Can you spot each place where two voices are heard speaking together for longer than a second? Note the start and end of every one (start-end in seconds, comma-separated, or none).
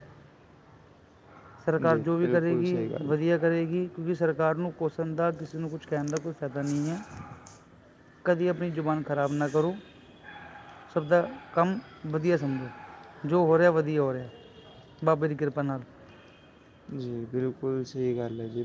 1.9-3.1